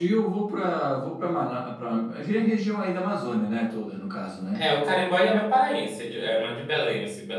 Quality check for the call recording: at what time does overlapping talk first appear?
none

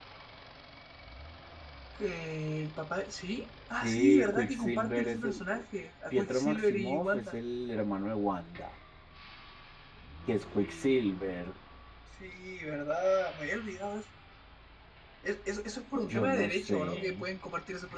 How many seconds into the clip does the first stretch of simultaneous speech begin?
3.8 s

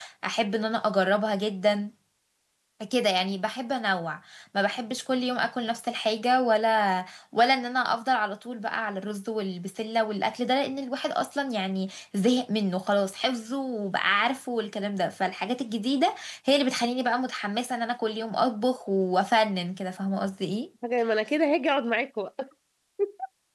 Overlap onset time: none

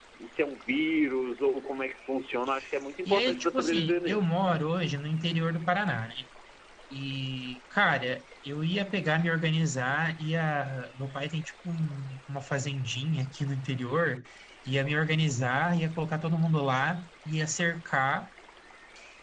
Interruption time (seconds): 3.1 s

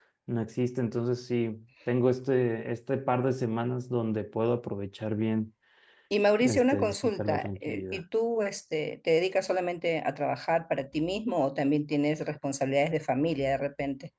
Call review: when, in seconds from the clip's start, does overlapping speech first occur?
6.4 s

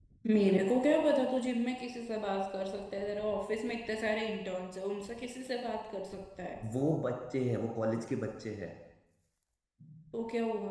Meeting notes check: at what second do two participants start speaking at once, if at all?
none

